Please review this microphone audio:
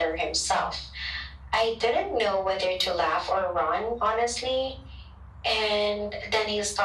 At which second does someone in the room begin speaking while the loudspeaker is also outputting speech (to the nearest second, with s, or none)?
none